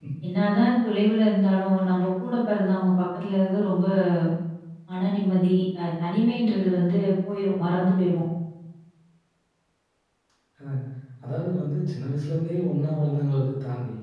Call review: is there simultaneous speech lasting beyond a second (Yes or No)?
No